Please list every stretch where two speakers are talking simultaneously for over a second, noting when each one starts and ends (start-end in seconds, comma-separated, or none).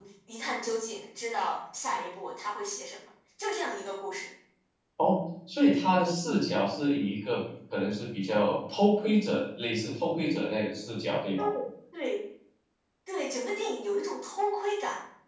none